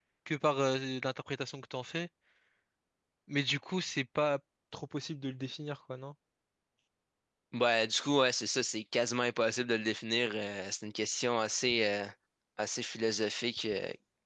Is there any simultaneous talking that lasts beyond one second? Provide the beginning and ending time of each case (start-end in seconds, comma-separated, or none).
none